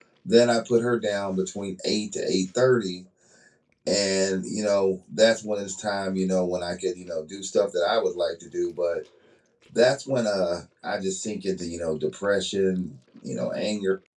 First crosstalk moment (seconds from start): none

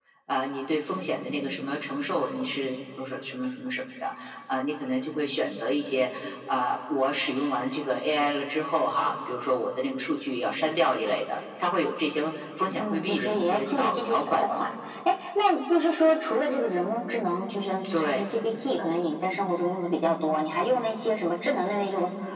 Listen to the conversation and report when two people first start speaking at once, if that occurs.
12.7 s

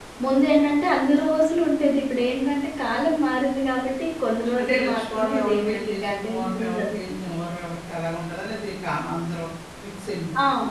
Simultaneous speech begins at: 4.5 s

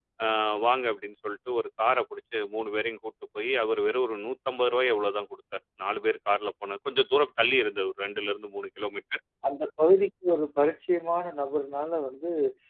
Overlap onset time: none

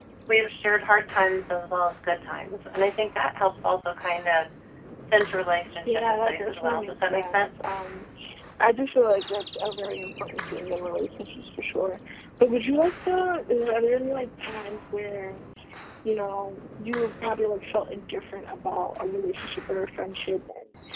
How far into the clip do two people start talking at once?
5.8 s

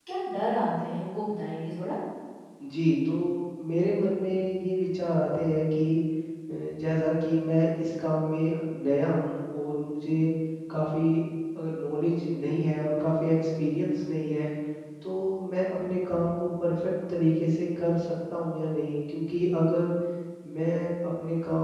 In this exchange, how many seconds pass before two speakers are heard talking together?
none

